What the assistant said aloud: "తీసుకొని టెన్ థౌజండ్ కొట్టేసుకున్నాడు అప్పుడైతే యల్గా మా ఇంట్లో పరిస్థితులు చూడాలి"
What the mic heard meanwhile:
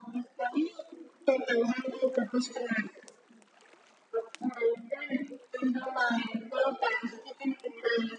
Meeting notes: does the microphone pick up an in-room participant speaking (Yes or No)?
No